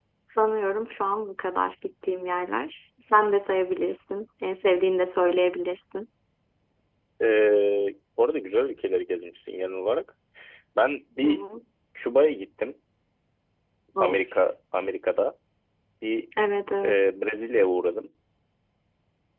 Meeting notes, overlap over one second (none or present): none